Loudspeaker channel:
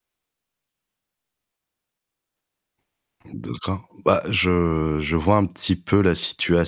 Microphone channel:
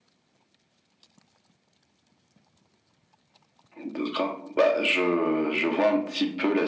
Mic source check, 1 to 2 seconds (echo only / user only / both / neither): neither